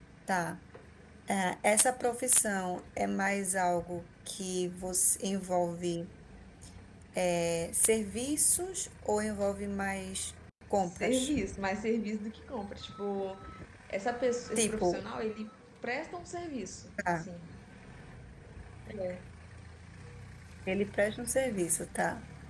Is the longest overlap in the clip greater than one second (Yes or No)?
No